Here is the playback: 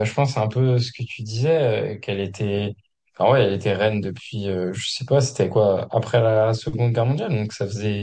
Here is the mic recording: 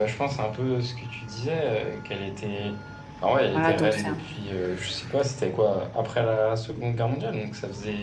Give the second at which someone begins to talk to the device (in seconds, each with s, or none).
3.5 s